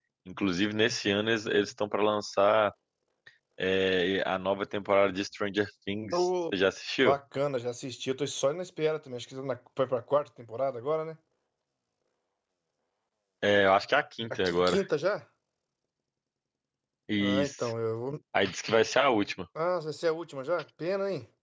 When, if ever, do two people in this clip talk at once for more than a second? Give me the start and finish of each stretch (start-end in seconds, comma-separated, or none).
none